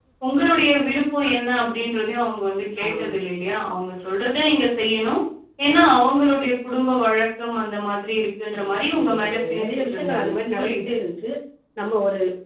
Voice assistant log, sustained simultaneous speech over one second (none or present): present